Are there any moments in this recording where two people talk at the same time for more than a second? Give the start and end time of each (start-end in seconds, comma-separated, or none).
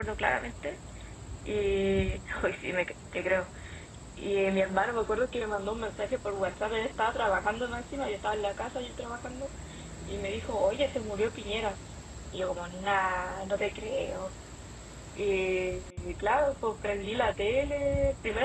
none